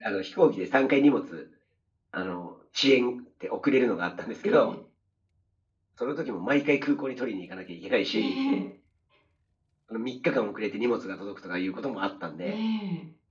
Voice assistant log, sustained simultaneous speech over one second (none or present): none